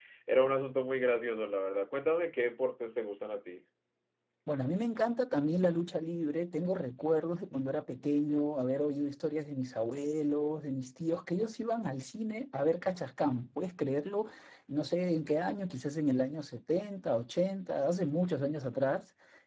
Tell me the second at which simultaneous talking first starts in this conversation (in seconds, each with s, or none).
none